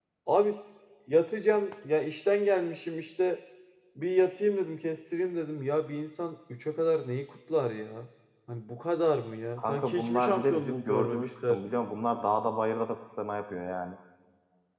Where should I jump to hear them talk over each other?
9.6 s

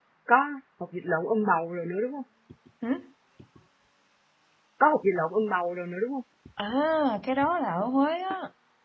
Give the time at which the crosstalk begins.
none

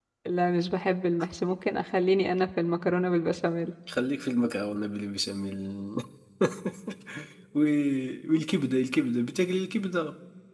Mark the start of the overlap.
none

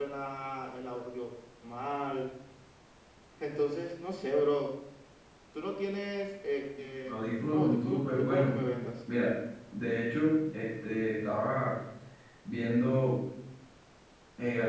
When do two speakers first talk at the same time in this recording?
7.1 s

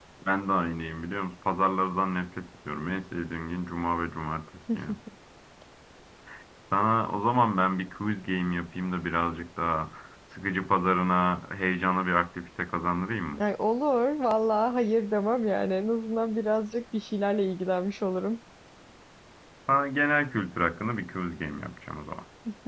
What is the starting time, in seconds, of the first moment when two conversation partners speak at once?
none

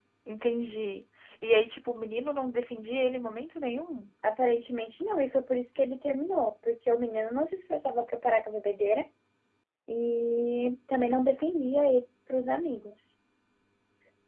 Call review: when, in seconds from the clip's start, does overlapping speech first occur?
none

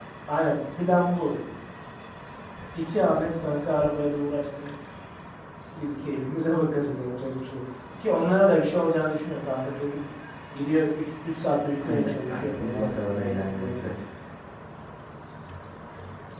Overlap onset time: 11.8 s

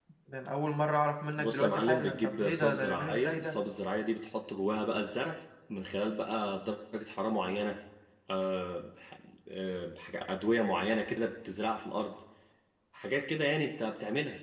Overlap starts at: 1.3 s

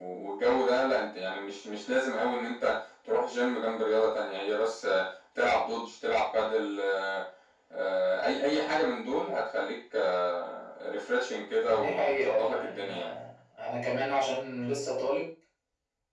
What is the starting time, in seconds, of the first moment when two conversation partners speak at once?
11.7 s

